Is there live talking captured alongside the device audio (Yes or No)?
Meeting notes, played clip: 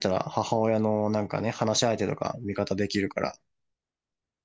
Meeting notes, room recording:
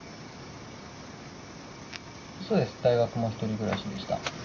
Yes